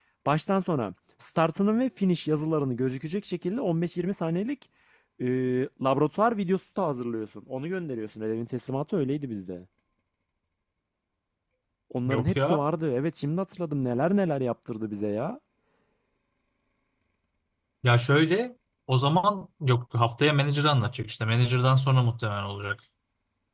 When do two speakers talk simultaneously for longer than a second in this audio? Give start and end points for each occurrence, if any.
none

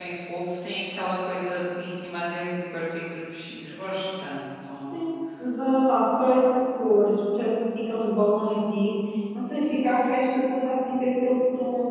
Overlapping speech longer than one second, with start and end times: none

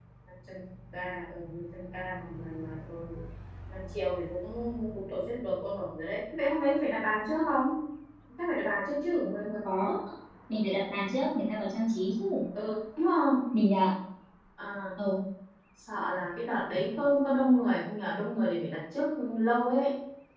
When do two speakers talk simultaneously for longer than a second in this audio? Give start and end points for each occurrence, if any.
none

